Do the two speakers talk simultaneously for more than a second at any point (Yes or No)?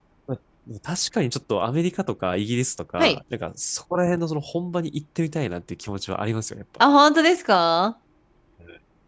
No